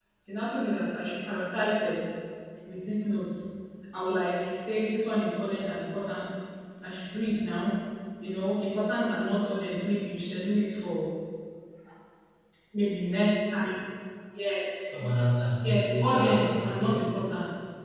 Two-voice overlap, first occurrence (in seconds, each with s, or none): 15.6 s